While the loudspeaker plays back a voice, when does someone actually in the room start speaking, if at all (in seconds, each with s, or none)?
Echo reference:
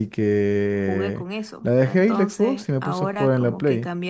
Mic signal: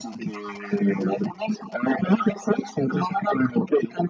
none